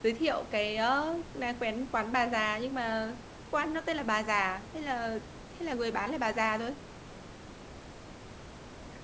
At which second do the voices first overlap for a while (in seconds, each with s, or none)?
none